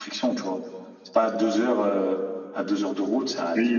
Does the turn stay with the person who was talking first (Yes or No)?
No